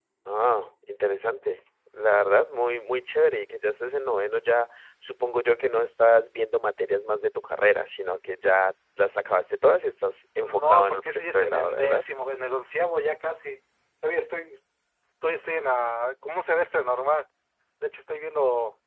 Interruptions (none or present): present